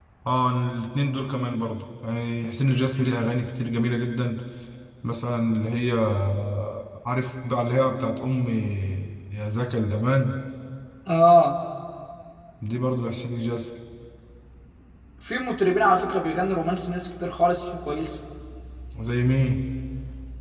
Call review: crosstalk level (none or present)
none